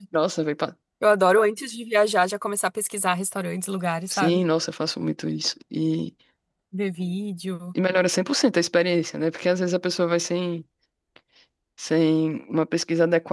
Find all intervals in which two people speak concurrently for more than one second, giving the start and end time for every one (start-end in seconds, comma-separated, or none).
none